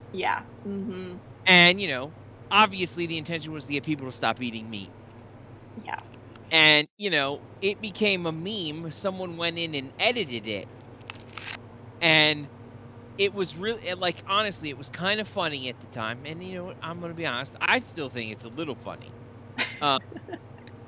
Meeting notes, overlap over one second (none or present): none